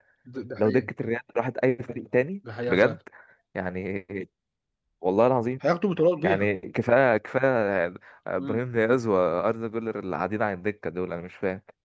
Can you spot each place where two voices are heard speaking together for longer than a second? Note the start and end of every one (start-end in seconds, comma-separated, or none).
none